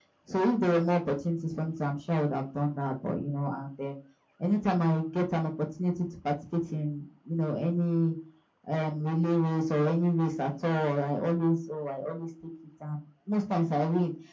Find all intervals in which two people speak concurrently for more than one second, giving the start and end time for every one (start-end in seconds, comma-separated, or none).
none